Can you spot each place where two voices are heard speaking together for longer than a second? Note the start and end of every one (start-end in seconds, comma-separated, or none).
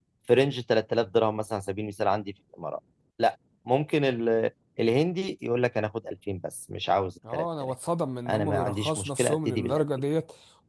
8.3-9.8